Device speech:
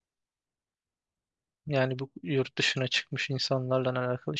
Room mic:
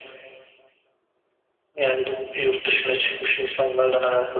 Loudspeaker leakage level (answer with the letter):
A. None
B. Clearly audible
B